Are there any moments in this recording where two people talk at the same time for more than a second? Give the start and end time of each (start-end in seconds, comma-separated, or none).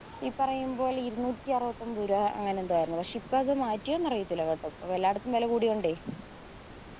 none